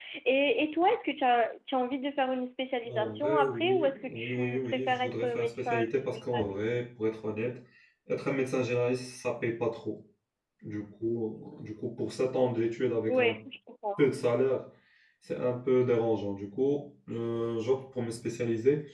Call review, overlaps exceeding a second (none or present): present